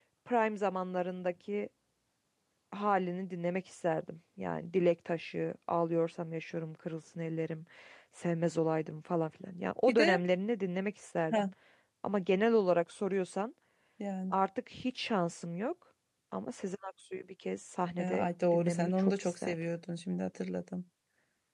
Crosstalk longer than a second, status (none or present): present